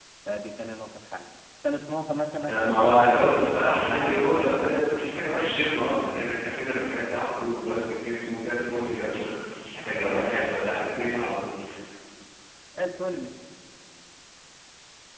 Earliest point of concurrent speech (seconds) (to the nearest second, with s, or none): 2 s